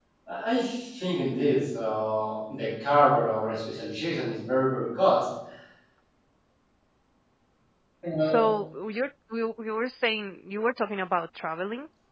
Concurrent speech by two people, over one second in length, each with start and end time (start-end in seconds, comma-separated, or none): none